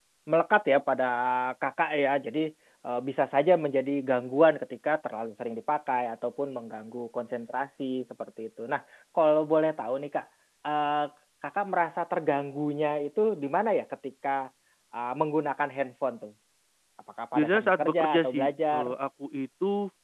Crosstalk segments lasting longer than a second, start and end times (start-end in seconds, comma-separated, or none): 17.4-18.9